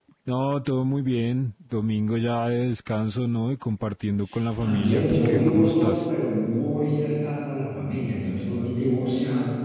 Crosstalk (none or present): present